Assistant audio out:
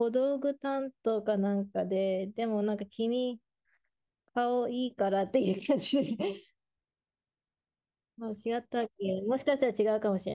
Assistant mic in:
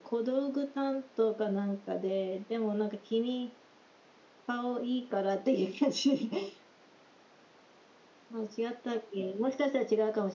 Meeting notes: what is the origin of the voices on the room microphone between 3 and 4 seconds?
echo only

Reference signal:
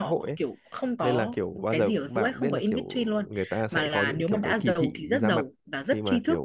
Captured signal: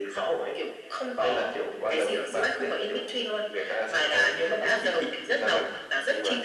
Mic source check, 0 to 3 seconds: echo only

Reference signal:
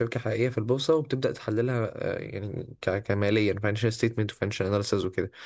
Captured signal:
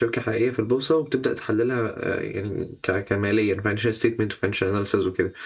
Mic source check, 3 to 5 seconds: echo only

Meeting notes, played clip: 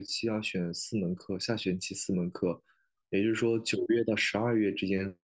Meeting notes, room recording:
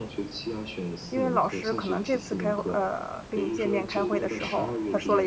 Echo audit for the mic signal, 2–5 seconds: both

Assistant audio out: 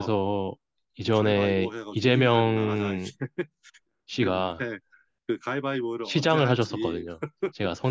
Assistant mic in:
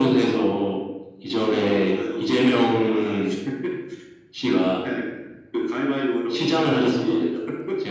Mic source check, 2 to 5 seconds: echo only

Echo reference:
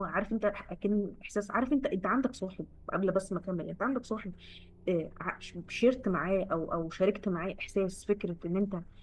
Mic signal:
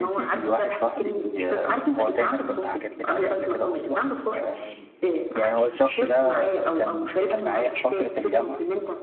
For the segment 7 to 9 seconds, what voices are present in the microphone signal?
both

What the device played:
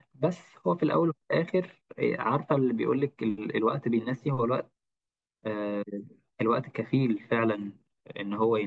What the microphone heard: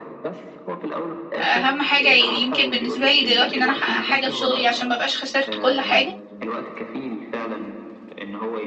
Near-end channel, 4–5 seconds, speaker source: both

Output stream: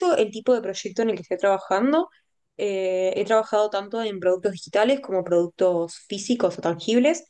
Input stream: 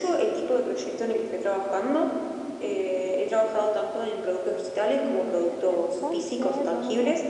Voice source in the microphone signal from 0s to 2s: echo only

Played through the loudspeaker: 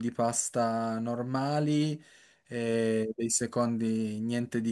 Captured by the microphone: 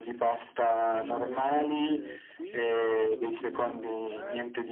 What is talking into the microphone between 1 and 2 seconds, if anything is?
both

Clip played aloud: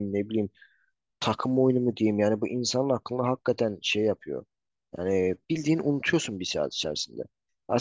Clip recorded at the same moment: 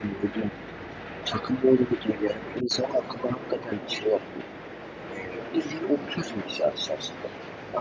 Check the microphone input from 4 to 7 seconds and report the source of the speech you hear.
echo only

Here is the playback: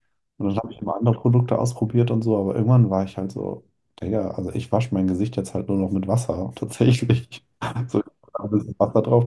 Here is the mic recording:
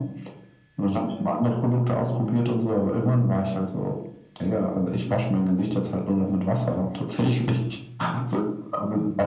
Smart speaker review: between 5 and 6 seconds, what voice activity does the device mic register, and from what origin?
echo only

